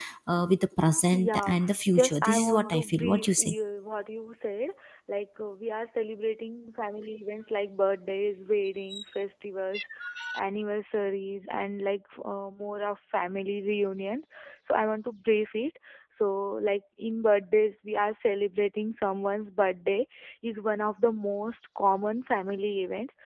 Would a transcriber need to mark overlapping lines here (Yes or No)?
Yes